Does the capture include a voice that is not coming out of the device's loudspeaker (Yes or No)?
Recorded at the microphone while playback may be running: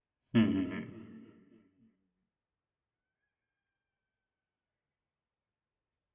Yes